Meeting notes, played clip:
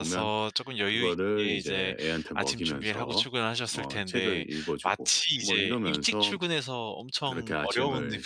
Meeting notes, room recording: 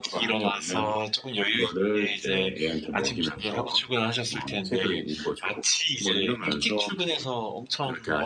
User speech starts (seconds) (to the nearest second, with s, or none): none